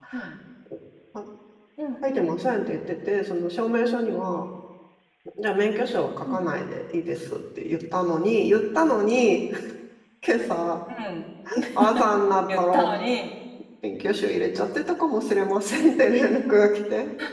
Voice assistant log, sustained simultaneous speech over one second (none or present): none